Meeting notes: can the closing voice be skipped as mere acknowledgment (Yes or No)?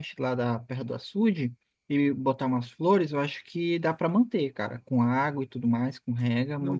No